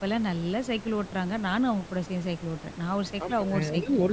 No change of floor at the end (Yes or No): No